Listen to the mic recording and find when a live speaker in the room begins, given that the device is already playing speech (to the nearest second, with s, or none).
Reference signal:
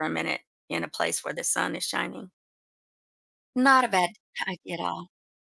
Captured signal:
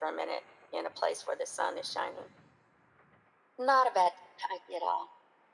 none